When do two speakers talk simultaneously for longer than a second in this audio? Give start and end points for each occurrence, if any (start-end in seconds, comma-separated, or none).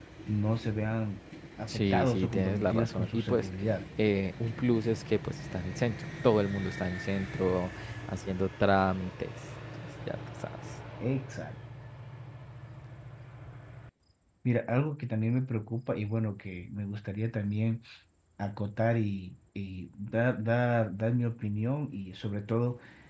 1.7-3.5